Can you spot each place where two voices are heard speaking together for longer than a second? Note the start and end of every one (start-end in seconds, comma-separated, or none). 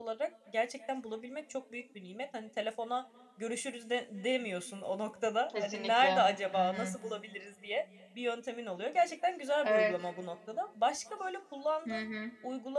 5.5-7.0